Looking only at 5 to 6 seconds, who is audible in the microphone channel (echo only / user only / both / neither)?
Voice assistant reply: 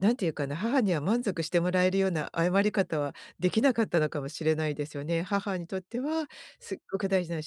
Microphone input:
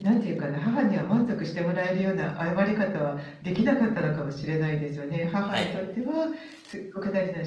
both